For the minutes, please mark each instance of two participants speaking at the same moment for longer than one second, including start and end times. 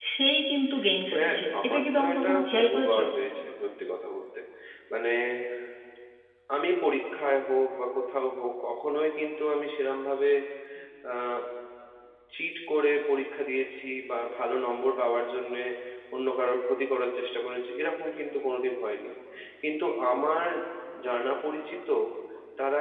1.1-3.0

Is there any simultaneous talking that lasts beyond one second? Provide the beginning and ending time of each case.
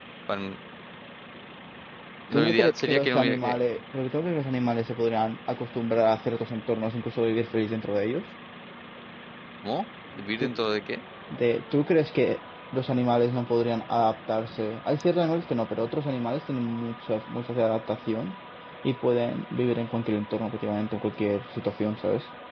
2.3-3.6

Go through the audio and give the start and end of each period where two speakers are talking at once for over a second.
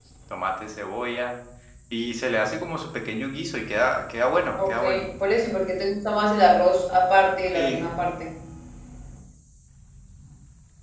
none

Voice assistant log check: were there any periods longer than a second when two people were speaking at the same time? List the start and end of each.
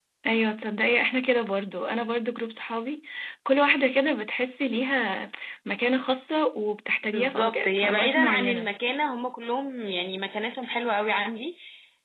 7.1-8.7

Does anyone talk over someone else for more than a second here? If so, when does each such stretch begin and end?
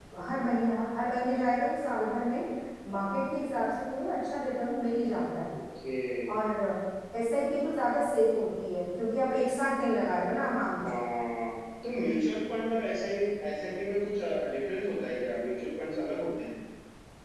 none

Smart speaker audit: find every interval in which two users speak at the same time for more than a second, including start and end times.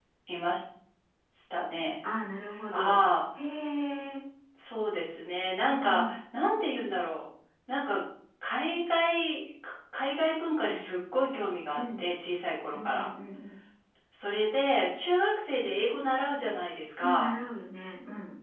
none

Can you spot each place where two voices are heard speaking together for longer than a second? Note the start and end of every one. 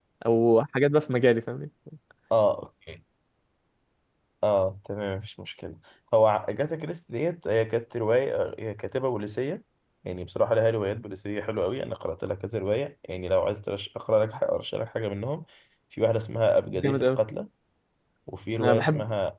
none

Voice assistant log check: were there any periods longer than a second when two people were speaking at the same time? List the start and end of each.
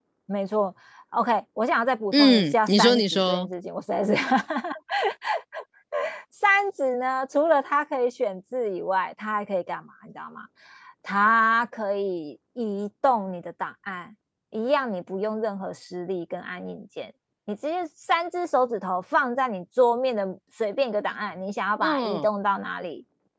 2.1-3.5

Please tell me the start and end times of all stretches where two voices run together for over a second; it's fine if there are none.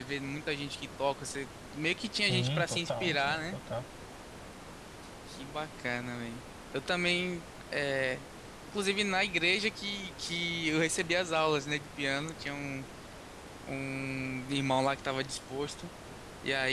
2.2-3.5

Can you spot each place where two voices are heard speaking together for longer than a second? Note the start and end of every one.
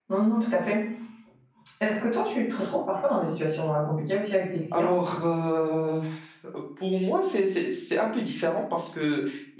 none

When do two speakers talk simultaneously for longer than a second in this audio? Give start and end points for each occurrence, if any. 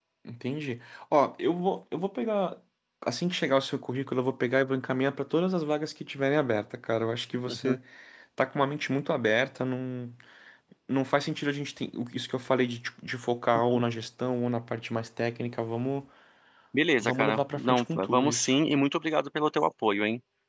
17.0-18.6

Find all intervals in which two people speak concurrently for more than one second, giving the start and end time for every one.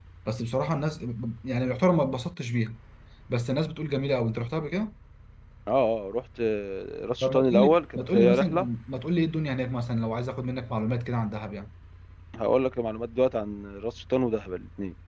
7.2-8.7

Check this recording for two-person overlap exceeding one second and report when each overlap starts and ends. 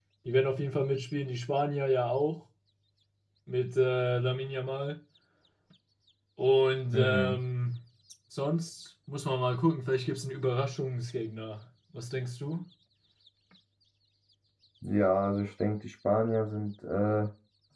none

